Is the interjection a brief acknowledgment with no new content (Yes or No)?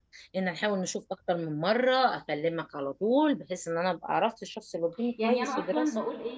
No